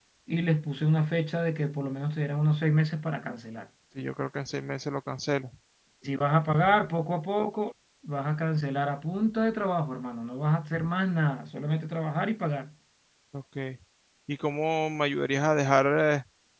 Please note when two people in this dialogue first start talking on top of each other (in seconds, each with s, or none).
none